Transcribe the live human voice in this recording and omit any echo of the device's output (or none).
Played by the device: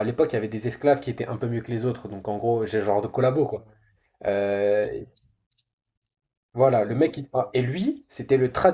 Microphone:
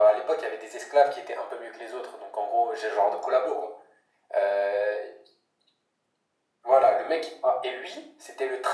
none